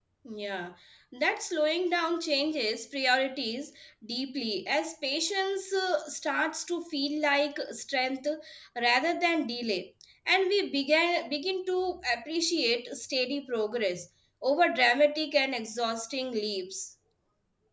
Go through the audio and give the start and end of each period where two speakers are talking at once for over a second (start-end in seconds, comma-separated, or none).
none